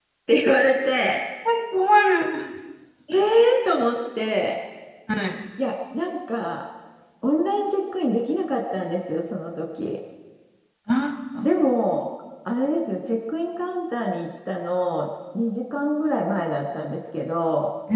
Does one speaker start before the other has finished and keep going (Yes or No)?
No